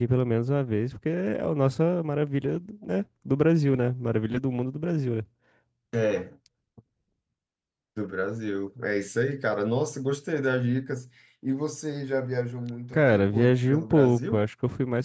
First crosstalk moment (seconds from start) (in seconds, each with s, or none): 12.9 s